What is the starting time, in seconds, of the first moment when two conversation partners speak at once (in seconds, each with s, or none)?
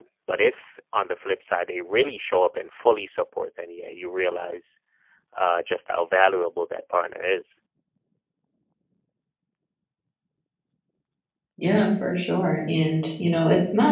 none